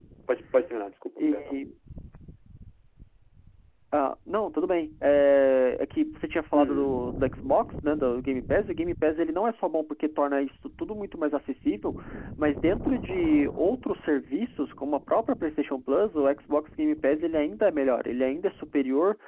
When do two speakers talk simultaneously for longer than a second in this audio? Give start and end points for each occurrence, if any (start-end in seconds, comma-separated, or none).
none